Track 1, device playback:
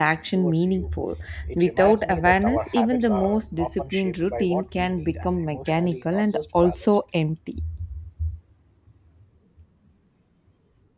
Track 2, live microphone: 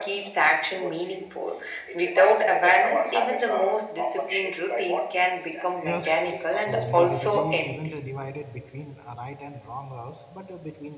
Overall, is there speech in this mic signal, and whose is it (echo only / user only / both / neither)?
both